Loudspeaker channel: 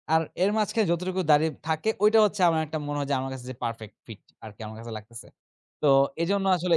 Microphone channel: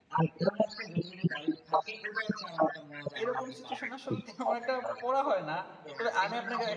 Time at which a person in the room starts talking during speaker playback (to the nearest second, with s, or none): 3 s